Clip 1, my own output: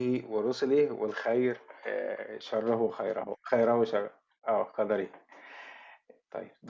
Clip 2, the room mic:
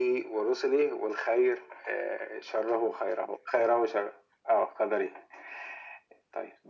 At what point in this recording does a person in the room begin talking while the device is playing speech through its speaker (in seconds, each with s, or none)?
none